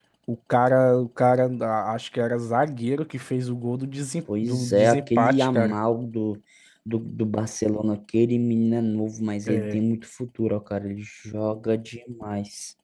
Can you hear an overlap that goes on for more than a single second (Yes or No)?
Yes